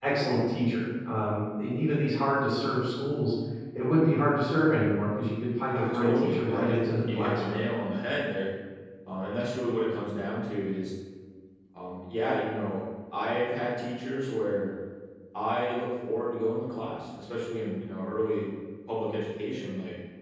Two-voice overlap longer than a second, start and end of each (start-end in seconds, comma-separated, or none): 5.8-7.6